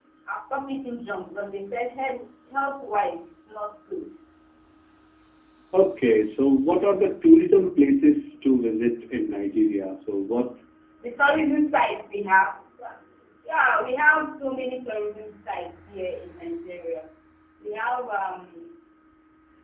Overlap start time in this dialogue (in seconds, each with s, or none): none